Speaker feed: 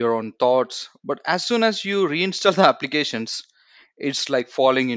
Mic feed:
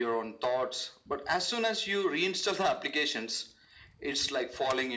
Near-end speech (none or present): none